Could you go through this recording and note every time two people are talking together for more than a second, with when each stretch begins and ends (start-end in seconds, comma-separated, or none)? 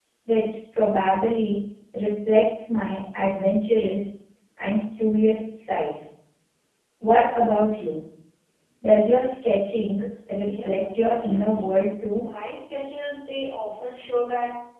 10.4-11.7